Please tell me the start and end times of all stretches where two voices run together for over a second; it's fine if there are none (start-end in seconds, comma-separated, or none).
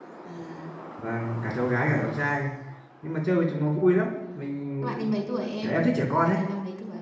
none